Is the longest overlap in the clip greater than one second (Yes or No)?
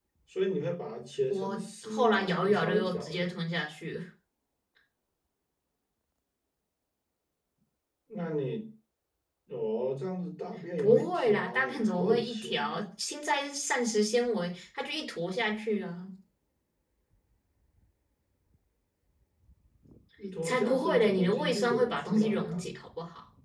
Yes